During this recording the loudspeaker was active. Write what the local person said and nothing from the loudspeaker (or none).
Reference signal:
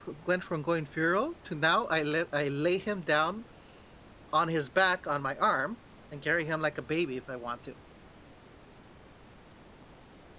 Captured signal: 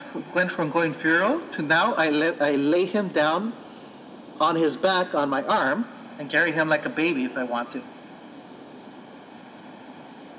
none